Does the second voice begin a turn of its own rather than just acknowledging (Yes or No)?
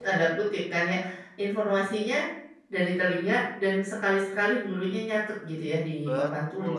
Yes